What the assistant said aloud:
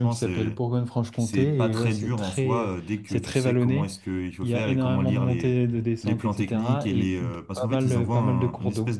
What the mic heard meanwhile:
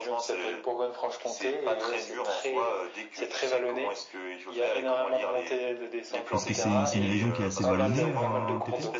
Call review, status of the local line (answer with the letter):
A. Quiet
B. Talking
B